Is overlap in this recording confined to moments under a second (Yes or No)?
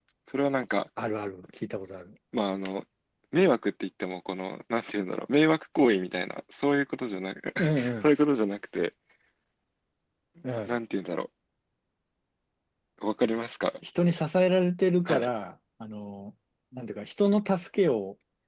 Yes